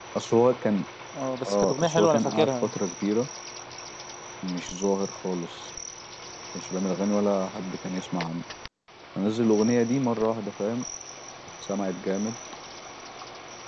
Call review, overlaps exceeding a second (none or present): present